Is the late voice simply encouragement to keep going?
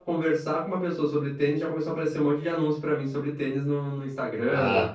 No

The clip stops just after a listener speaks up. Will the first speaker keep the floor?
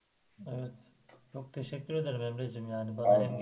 Yes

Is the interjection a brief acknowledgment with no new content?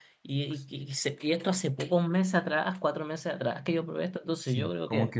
No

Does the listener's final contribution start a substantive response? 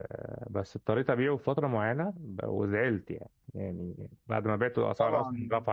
No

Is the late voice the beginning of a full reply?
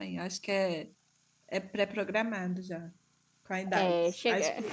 No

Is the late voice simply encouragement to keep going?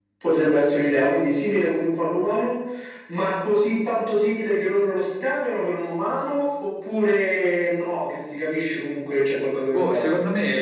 No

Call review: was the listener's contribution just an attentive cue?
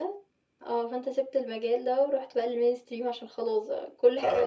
No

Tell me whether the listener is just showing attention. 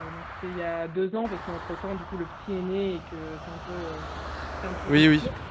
Yes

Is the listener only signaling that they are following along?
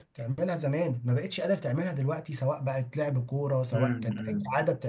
No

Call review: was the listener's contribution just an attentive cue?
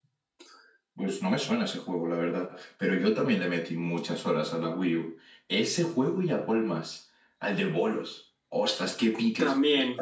Yes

